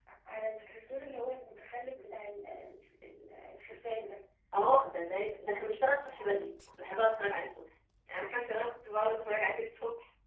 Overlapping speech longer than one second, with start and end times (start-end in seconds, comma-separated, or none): none